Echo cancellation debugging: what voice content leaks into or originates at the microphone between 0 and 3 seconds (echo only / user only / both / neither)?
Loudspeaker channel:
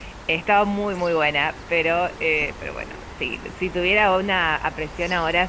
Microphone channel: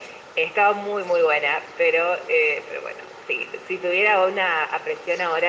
echo only